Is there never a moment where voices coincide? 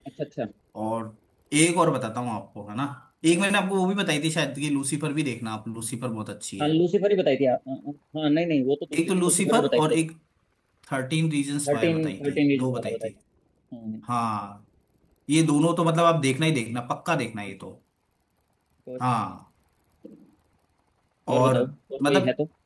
No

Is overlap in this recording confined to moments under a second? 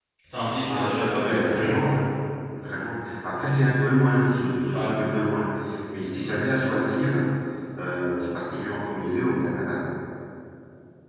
No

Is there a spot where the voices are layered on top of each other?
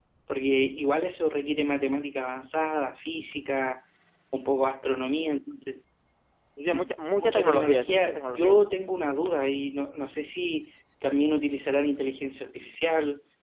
Yes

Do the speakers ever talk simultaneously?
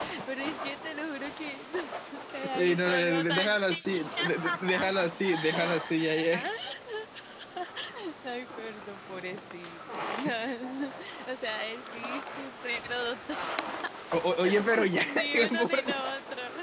Yes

